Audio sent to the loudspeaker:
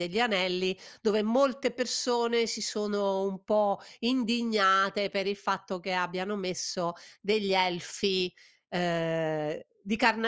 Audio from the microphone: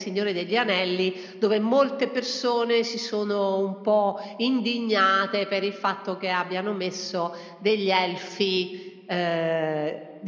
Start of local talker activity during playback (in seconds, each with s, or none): none